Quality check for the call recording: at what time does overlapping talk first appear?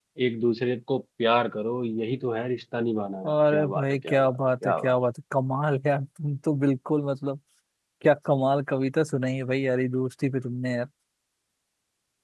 3 s

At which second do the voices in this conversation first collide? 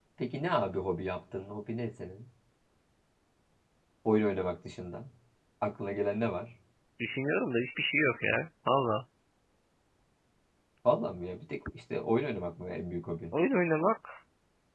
none

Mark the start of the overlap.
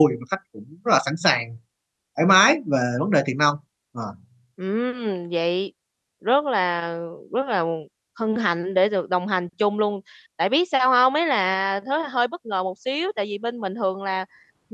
none

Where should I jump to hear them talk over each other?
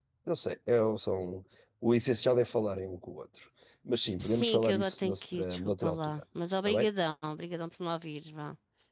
4 s

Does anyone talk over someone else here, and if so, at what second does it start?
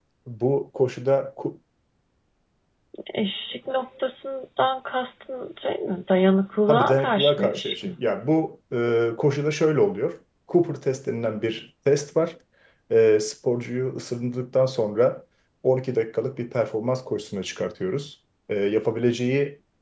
7 s

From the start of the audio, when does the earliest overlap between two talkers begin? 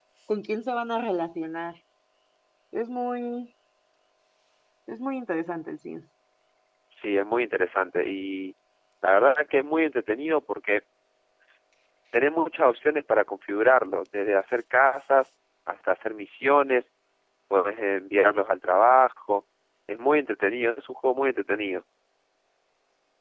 none

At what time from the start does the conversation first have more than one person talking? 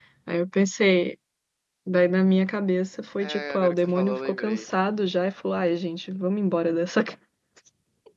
3 s

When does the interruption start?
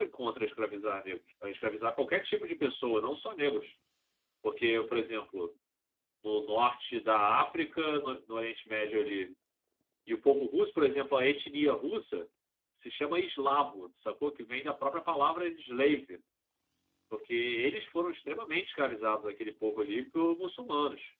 none

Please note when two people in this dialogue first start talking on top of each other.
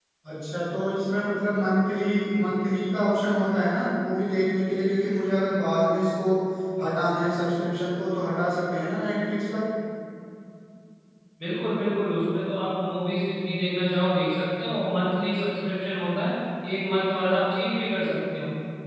none

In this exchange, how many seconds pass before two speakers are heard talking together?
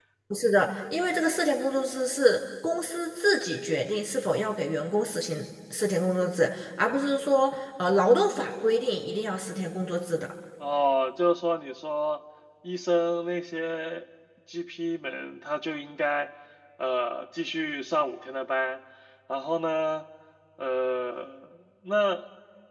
none

